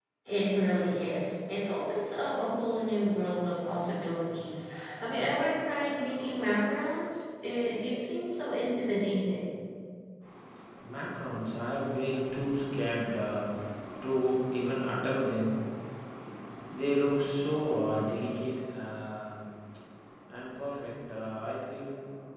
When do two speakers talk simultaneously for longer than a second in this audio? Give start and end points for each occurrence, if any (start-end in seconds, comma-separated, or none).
none